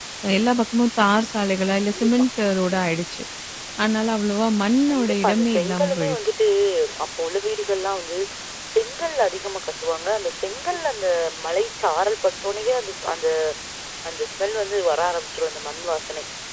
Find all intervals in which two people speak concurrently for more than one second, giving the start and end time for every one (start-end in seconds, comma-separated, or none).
4.9-6.2